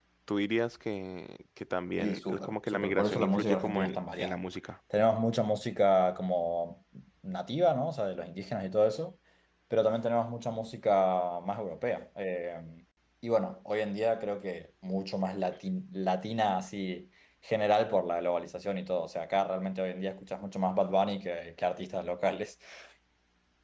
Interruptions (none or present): present